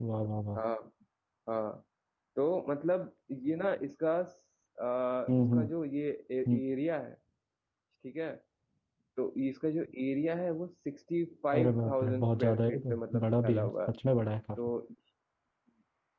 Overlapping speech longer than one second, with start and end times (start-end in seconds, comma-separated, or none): 11.5-13.9